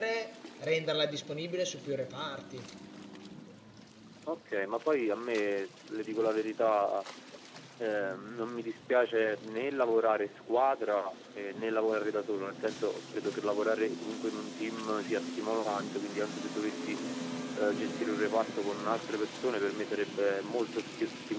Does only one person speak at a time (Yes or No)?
Yes